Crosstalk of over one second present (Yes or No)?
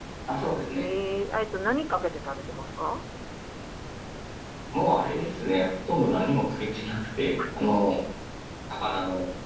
No